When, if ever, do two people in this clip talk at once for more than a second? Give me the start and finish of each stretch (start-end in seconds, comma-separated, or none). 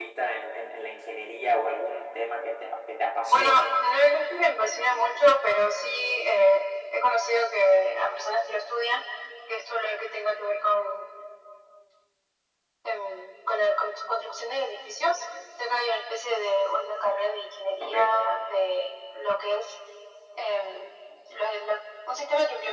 none